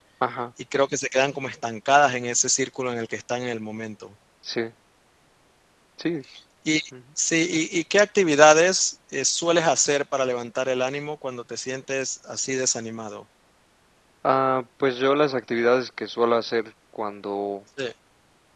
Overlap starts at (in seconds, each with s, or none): none